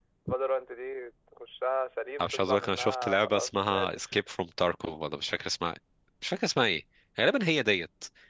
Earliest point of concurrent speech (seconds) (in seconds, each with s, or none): 2.2 s